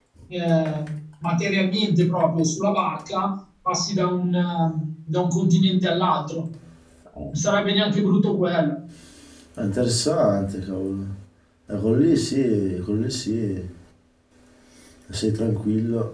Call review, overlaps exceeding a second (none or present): none